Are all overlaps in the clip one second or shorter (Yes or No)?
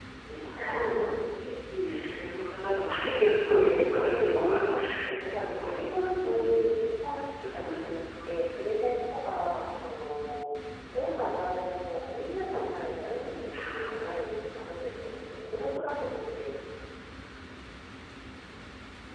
No